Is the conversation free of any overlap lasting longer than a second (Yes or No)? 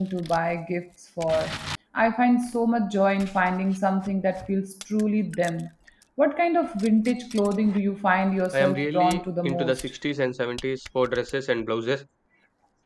No